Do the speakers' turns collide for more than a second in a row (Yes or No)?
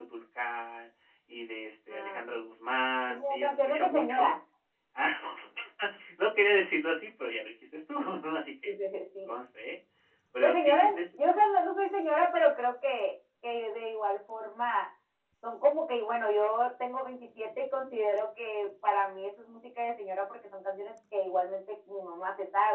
Yes